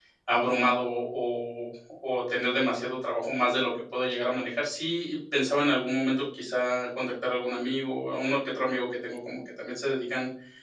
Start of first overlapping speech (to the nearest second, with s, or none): none